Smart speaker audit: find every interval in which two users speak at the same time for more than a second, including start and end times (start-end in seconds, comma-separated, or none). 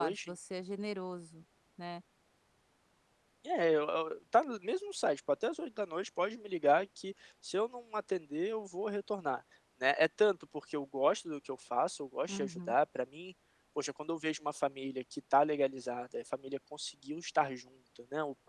none